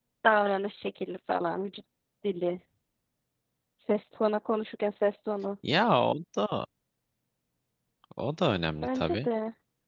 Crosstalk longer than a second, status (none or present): none